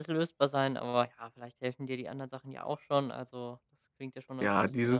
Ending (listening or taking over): taking over